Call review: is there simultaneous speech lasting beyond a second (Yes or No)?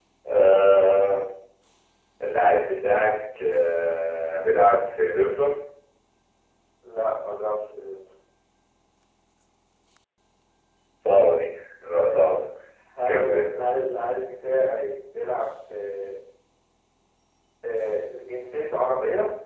No